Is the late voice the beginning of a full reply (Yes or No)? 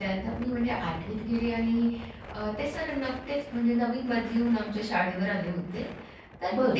No